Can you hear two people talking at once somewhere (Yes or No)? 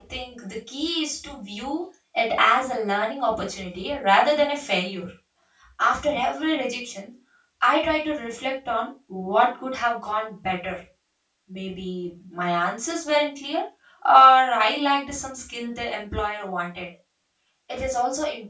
No